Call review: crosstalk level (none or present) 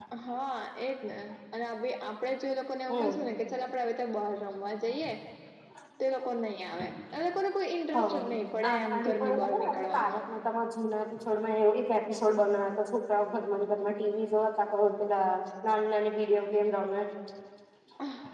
present